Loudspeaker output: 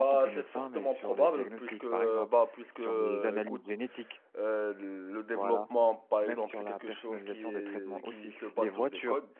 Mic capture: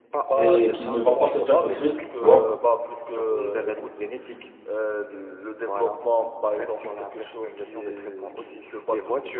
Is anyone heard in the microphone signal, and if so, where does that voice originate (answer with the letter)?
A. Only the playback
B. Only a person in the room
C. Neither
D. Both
D